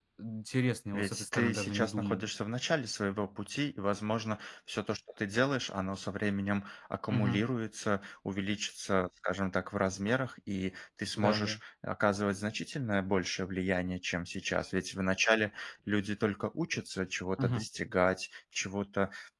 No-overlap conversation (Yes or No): No